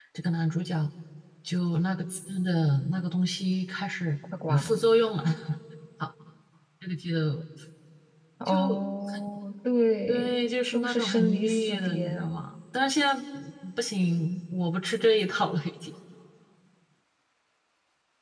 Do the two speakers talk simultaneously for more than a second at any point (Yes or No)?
Yes